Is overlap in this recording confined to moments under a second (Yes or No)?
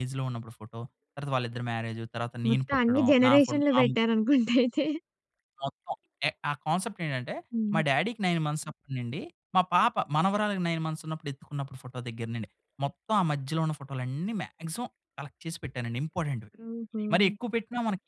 No